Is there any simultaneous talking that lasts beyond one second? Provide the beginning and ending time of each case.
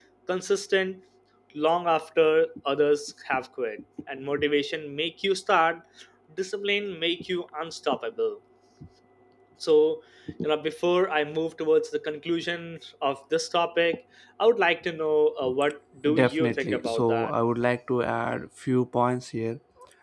16.1-17.3

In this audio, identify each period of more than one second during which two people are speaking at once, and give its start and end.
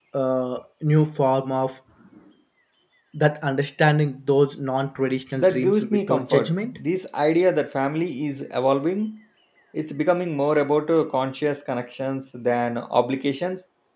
5.4-6.8

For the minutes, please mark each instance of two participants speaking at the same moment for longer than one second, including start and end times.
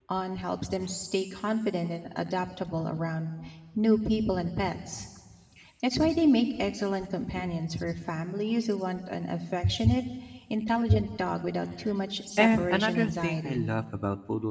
12.4-13.7

